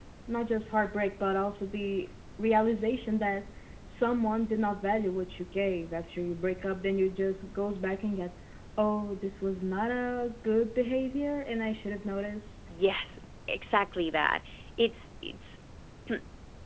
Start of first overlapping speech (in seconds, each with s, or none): none